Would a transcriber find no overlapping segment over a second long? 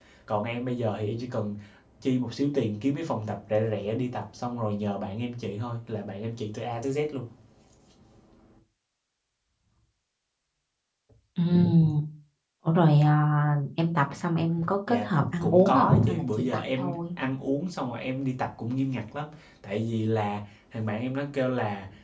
No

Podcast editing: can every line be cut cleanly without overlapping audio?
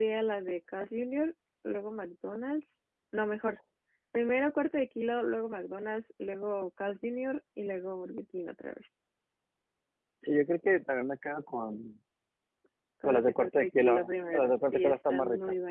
No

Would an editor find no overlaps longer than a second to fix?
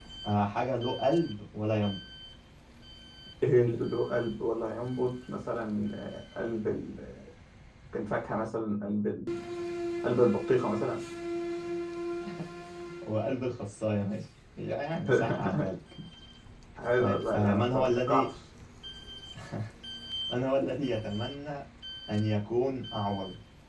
No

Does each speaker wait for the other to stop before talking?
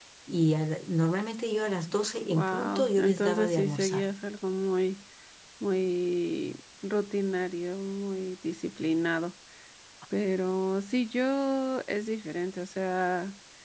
No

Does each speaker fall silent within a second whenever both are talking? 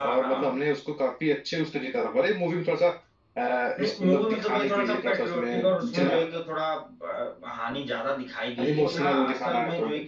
No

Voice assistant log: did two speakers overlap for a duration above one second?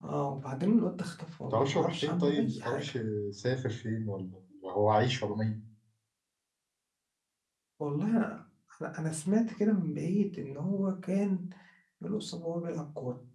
Yes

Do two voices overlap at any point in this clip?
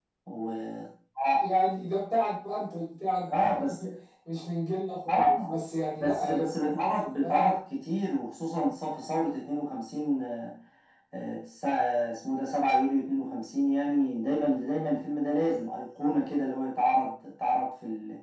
Yes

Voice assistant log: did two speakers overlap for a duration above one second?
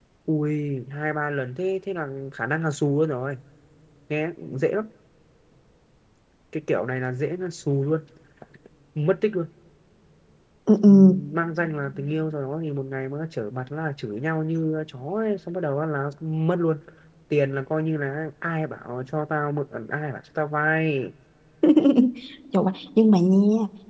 No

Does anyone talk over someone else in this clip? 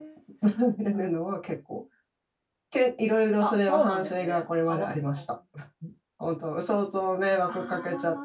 Yes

